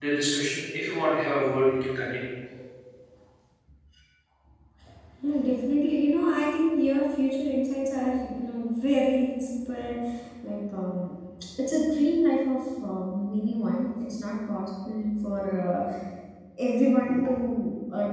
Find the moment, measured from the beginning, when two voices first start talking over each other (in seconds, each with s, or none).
none